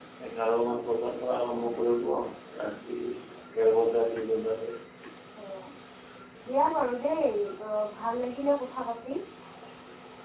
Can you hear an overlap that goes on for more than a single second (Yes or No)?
No